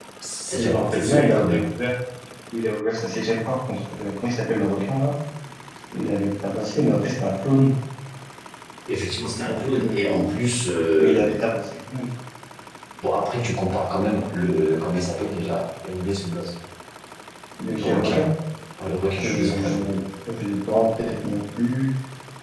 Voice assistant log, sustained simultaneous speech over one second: present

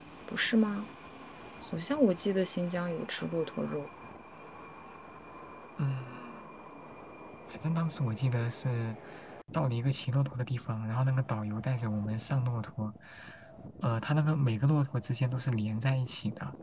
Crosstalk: none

